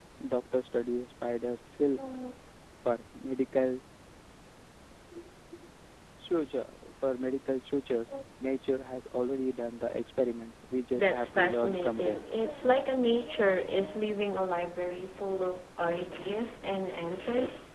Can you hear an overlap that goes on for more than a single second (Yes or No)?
Yes